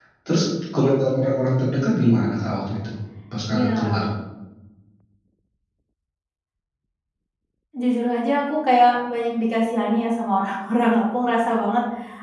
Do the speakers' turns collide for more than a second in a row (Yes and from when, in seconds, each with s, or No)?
No